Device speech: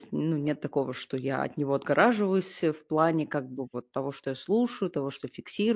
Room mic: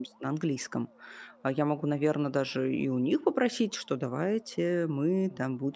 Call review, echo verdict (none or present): none